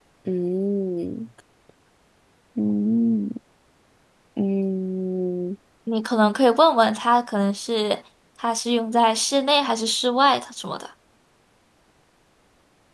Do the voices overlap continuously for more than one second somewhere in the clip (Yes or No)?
No